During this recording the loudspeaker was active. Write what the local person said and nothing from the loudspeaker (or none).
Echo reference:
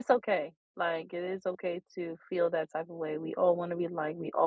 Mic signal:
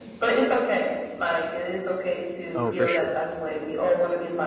Oh, for sure.